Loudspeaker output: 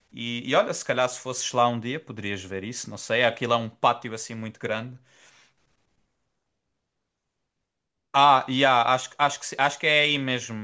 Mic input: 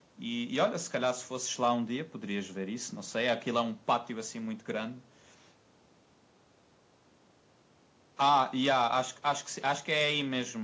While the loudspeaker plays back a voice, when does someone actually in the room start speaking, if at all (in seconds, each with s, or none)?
none